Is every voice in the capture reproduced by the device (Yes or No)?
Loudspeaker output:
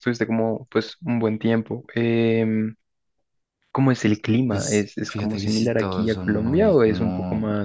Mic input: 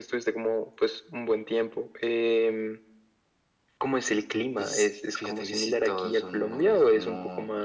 Yes